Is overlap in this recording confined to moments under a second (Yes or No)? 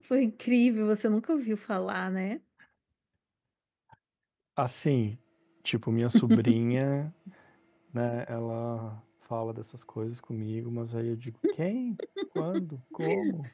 Yes